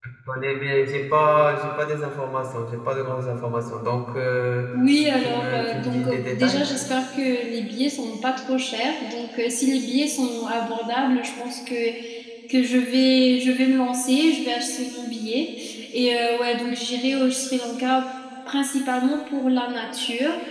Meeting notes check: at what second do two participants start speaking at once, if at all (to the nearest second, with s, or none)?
5 s